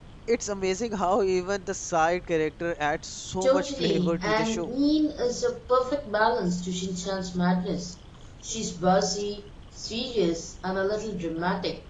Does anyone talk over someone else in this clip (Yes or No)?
Yes